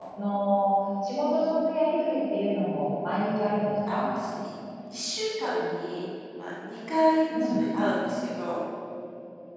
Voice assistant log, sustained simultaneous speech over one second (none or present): none